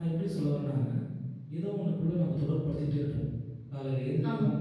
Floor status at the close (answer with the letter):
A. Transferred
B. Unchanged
B